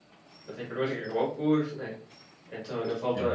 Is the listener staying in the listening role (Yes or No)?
Yes